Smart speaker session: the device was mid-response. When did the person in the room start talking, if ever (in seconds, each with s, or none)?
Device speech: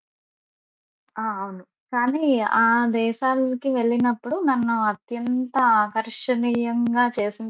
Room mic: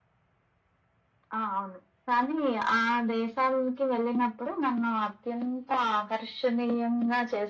none